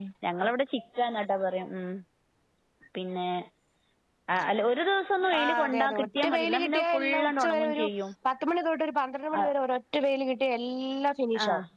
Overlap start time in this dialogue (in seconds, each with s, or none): 5.4 s